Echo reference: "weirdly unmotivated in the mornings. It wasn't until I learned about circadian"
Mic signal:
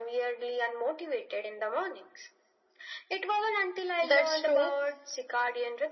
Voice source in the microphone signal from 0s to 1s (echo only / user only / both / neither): echo only